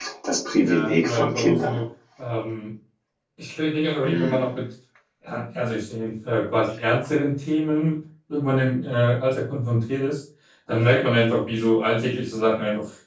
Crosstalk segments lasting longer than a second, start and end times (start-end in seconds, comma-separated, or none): 0.6-1.8